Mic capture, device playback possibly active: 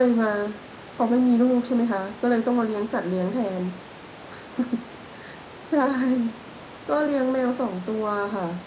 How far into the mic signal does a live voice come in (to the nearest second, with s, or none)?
none